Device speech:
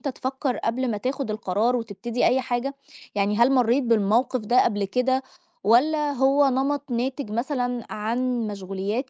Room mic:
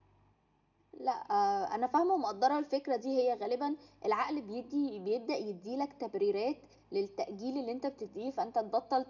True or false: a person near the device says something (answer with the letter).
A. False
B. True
B